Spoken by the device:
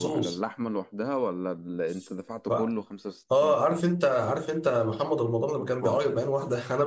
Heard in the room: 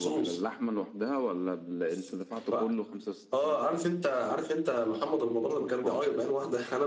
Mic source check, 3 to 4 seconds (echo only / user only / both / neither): echo only